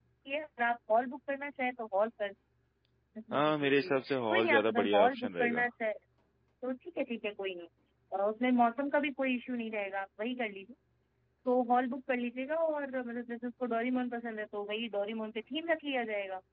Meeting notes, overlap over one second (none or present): present